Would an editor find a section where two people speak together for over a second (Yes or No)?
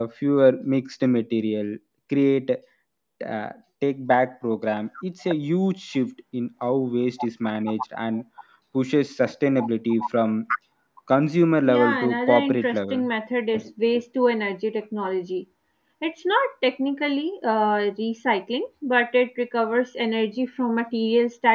Yes